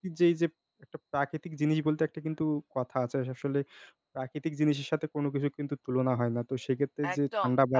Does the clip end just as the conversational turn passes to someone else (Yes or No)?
Yes